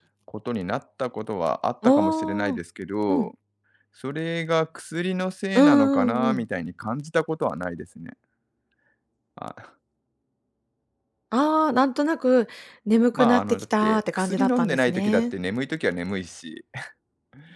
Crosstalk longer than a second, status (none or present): present